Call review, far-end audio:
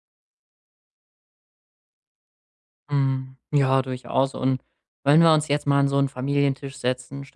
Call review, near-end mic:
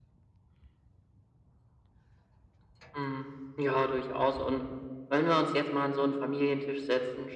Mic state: echo only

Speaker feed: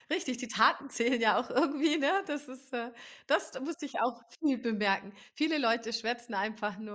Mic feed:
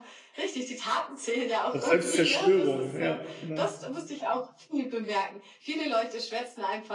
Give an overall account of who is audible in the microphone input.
both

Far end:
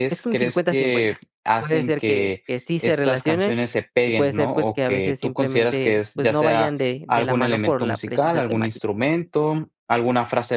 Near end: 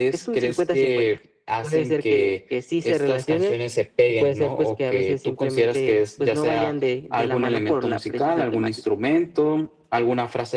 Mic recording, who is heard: echo only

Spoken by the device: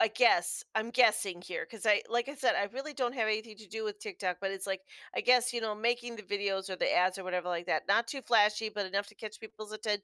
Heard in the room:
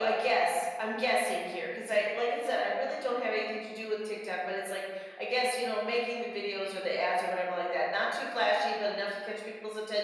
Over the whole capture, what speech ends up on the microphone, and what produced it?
echo only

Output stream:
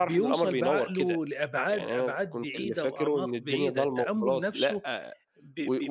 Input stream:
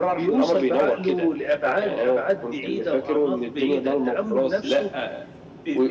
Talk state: echo only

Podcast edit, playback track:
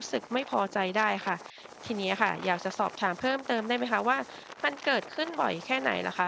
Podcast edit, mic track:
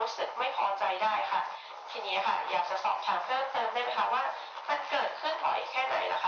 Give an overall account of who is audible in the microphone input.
echo only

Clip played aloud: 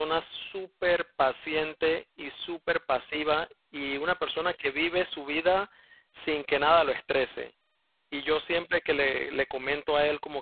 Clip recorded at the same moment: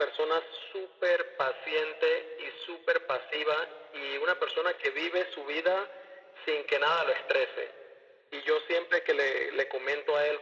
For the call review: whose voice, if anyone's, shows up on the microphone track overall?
echo only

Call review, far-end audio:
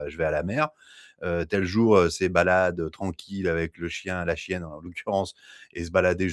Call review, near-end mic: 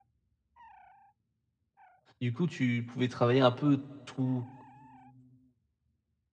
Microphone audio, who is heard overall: user only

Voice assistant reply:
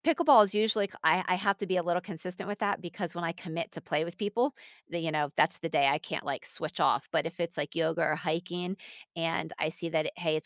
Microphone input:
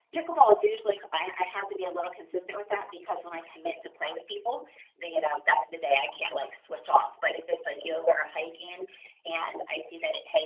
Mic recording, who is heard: echo only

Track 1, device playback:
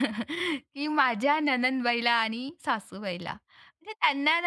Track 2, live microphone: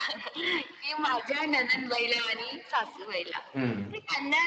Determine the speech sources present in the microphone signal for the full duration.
both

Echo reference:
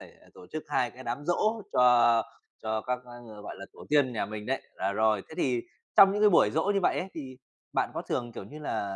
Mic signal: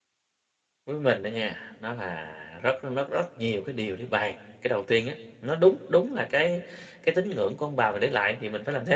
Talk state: user only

